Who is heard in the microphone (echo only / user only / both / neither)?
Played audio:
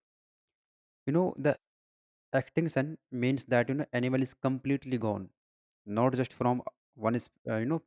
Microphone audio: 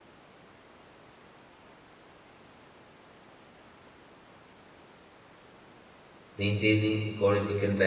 user only